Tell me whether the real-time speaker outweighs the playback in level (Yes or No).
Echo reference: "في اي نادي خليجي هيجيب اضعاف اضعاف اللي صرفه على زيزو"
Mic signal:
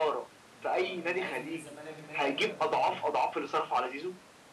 No